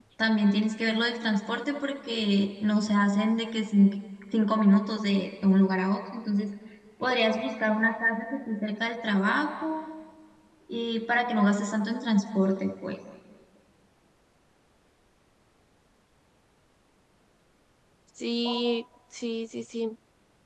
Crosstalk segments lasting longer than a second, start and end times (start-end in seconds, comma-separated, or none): none